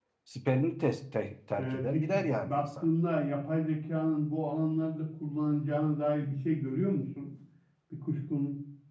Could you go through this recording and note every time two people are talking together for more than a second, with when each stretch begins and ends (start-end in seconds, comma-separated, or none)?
1.6-2.9